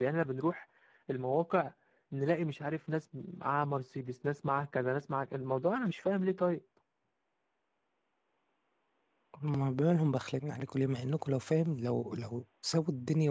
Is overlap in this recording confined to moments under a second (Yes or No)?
Yes